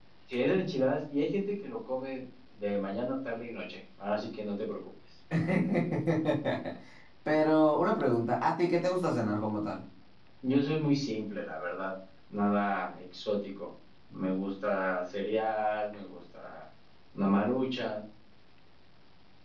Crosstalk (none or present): none